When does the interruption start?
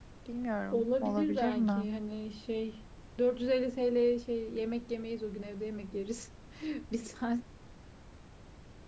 0.7 s

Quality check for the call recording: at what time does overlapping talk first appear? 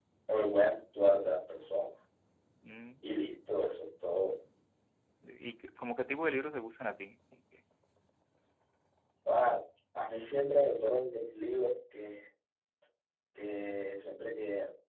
none

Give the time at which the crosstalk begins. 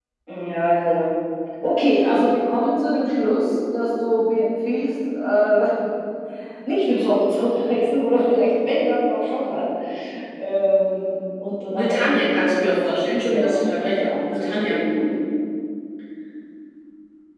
11.7 s

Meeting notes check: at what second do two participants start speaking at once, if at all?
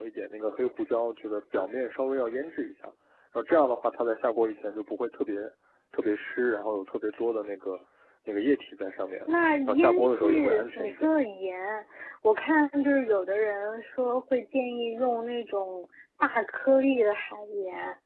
9.7 s

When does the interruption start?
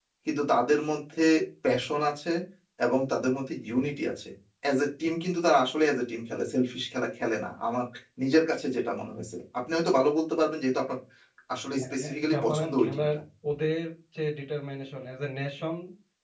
11.8 s

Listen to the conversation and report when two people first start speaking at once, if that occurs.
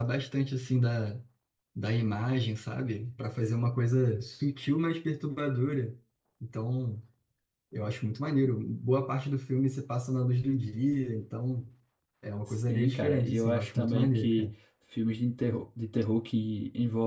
12.5 s

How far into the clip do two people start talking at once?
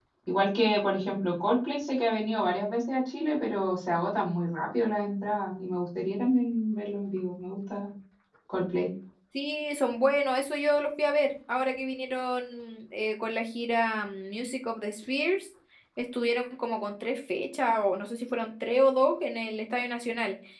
none

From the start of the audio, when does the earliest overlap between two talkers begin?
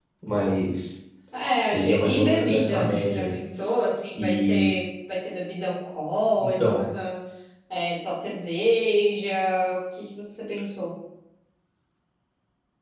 1.7 s

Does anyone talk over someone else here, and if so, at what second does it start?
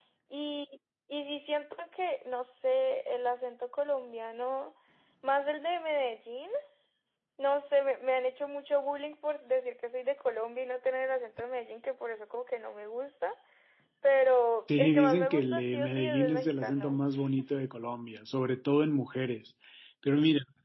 14.8 s

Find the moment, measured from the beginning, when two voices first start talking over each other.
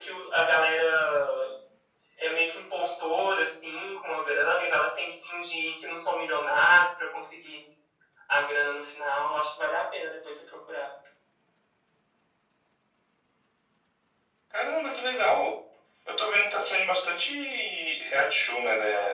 none

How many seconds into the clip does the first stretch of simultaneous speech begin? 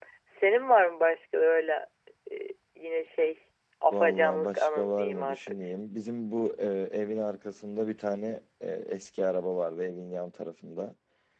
3.9 s

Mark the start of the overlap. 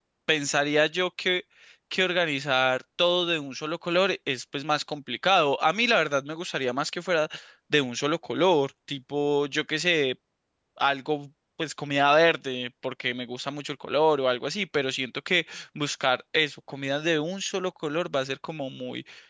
none

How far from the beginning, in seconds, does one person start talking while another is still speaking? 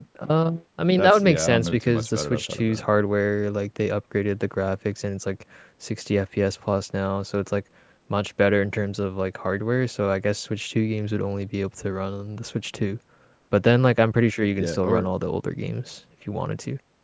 1.0 s

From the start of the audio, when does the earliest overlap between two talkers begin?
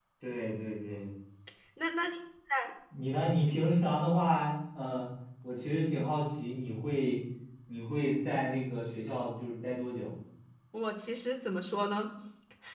none

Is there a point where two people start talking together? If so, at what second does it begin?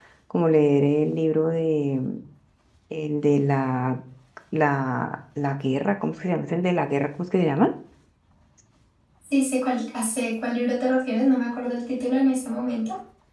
none

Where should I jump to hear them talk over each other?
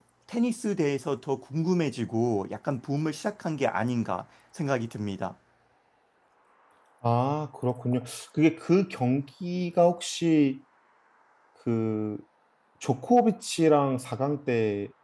none

